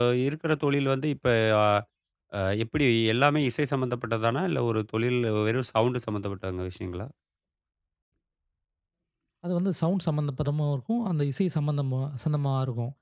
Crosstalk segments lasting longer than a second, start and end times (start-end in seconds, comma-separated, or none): none